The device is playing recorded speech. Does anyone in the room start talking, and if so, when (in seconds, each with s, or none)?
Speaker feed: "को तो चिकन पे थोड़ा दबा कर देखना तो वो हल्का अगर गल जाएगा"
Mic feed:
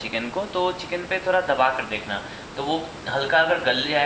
none